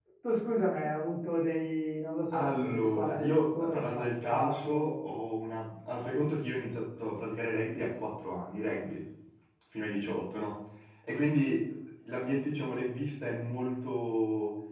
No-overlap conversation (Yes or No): No